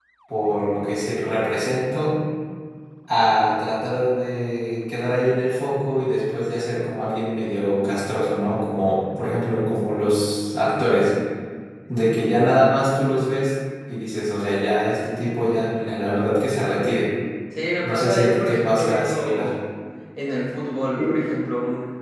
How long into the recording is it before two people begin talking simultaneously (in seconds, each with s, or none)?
17.8 s